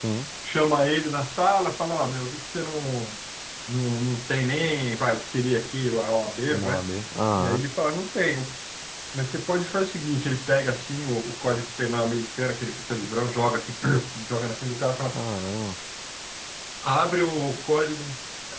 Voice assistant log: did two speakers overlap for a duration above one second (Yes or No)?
No